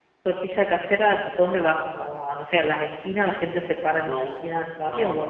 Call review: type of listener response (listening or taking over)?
taking over